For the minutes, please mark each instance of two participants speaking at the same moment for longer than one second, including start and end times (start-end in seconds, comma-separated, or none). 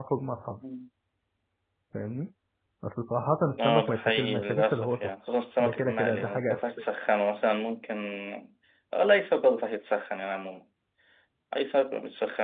3.6-5.1, 5.6-6.8